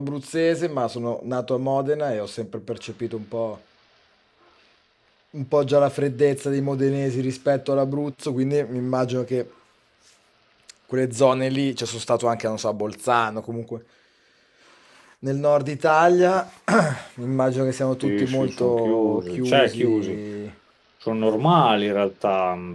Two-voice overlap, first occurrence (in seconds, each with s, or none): 18.0 s